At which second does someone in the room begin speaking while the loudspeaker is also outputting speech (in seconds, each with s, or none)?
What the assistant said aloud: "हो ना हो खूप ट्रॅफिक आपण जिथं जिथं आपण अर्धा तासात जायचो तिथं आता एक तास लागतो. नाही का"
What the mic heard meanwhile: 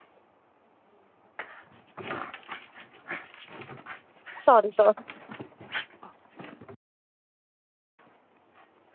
4.4 s